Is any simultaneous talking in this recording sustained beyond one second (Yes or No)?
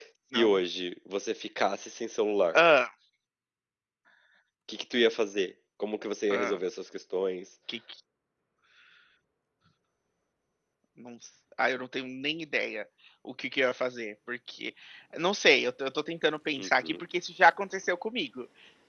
No